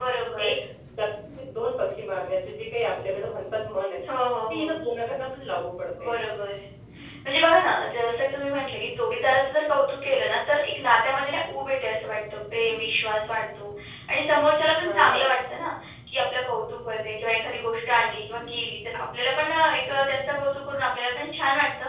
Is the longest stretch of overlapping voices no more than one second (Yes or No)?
Yes